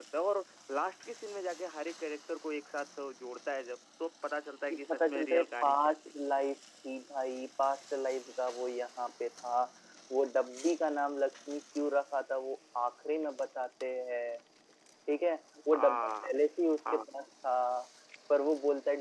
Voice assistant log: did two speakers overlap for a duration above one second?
Yes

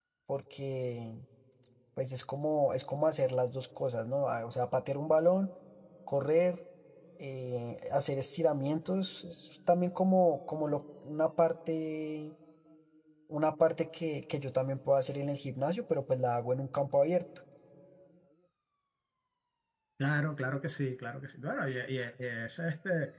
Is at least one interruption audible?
No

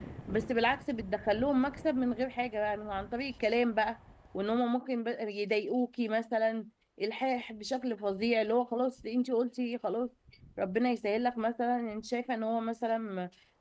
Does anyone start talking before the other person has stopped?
No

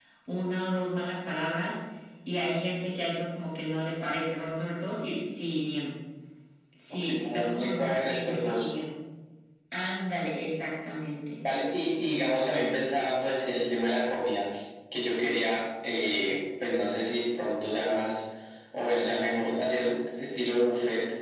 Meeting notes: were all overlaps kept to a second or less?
No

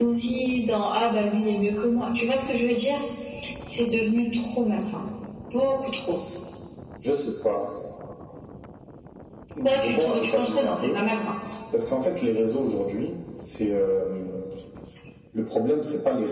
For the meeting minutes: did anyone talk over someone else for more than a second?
Yes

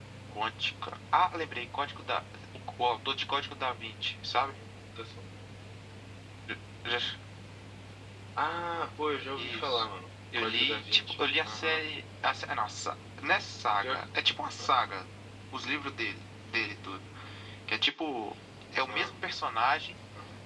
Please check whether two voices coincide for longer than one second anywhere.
Yes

